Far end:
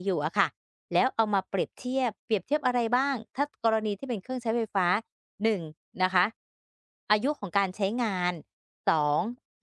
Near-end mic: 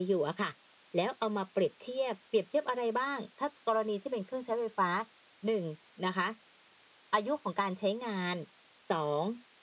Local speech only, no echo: none

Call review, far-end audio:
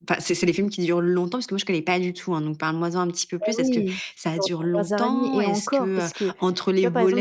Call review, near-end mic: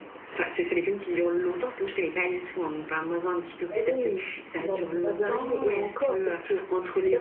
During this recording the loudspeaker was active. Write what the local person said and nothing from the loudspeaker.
le le 1 film

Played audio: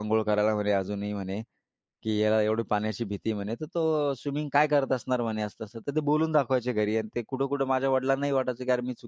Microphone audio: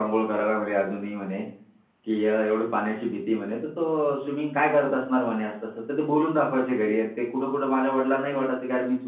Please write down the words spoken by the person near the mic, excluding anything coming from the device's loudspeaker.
none

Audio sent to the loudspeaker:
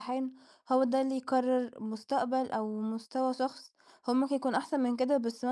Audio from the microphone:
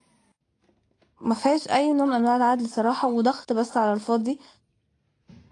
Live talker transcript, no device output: ما فيهاش أي نوع من أنواع العدل صراحة وضغط بس على الفاضي،

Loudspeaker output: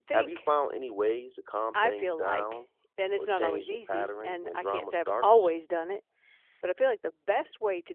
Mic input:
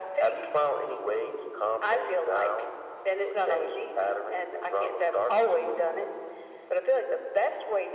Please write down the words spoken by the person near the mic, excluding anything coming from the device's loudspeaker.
none

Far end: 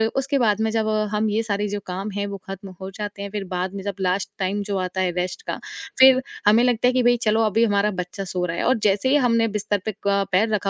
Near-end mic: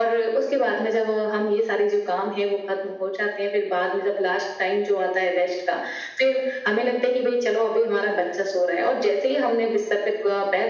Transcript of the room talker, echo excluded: none

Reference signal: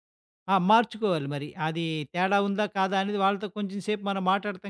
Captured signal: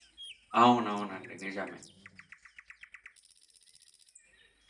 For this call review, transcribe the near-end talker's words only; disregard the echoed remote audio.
అవునవునండి. నిజమే.

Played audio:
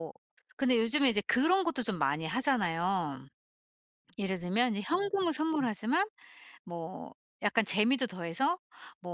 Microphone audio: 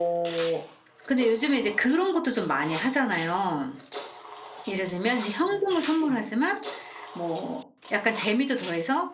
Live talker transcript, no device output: none

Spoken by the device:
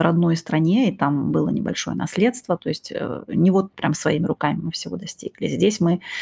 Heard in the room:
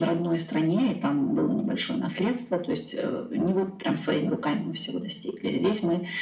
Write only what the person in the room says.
none

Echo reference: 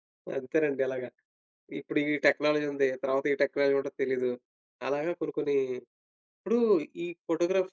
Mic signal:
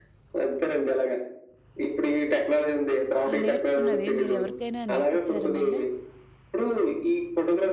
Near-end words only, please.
ఆ నేర్చుకున్నవి మీరు ఎవరికైనా నేర్పించారా మళ్ళా?

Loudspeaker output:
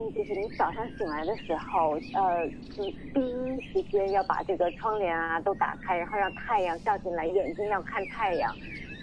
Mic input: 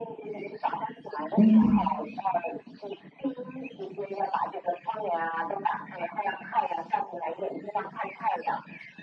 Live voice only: 嗯

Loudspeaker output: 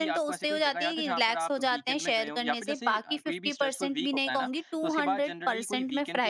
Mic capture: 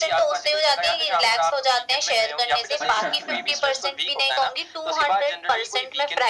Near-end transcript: अच्छा, अच्छा।

